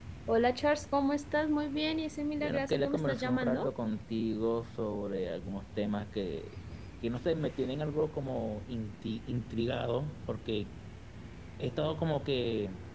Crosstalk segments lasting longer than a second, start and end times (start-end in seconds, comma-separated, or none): 2.4-3.7